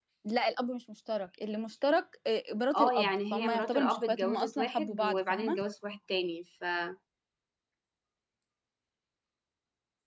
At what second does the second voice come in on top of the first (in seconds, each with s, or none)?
2.7 s